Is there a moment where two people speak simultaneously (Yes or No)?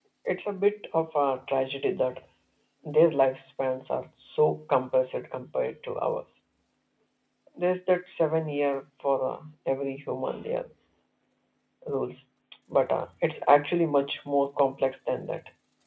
No